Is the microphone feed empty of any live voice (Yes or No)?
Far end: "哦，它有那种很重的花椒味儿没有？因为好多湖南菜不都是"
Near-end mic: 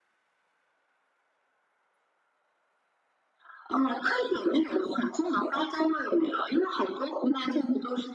Yes